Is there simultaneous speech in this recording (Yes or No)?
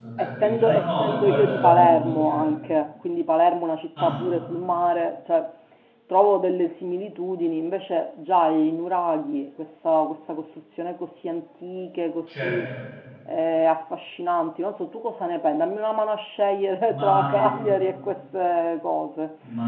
Yes